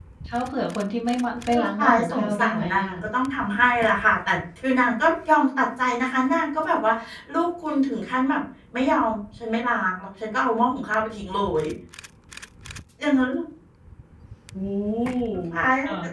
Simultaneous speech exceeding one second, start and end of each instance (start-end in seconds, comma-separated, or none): 1.5-2.9